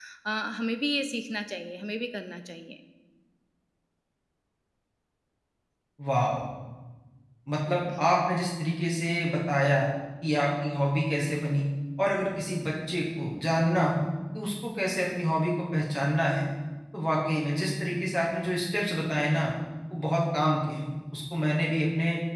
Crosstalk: none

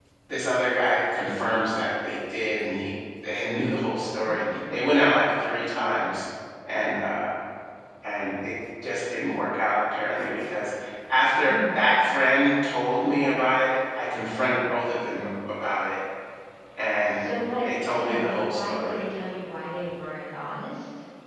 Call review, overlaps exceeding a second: present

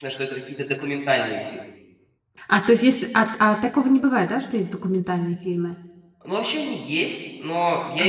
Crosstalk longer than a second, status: none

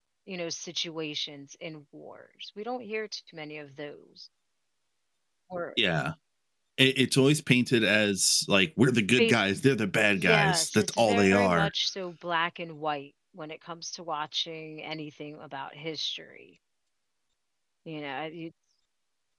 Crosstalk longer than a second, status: present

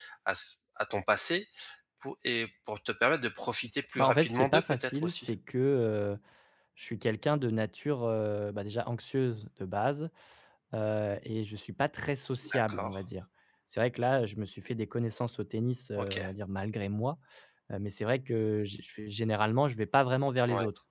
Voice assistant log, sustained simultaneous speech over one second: present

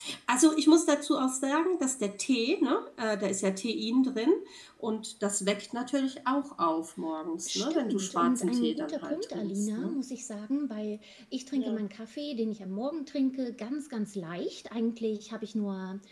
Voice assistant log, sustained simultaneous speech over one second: present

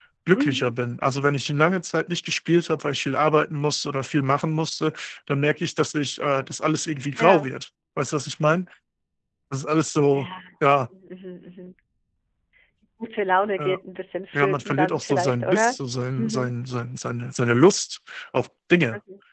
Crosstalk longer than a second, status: present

